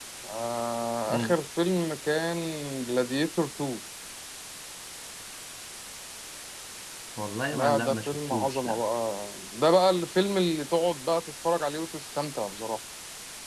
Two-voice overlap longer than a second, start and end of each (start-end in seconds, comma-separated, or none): 7.5-8.8